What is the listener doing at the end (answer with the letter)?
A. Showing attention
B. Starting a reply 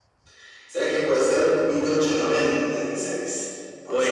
B